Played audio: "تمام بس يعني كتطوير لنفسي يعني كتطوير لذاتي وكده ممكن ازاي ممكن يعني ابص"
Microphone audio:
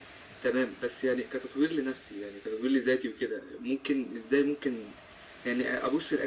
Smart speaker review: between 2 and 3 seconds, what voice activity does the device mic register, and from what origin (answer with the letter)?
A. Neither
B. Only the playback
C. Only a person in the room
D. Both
B